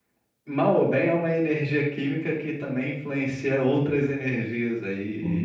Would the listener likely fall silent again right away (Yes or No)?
No